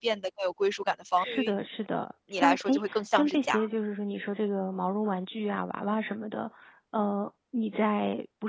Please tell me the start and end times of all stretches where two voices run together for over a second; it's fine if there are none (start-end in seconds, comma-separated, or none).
2.3-3.6